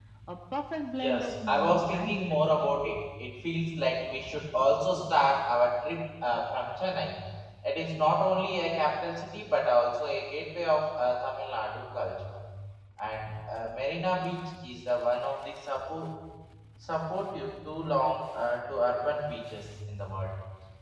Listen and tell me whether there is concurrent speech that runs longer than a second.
Yes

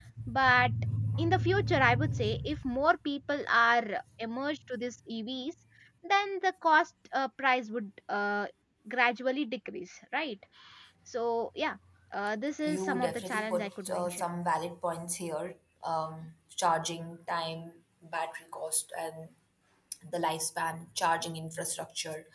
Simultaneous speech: Yes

